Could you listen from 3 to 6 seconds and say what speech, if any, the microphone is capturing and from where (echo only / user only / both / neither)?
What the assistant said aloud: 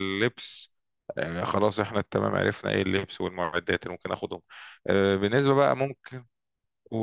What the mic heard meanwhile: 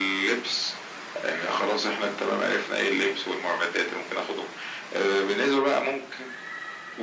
echo only